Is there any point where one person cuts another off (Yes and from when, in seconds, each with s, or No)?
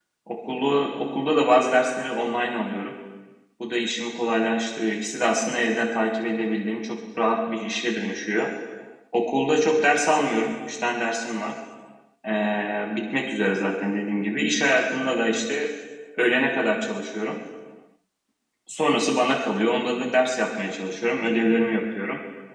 No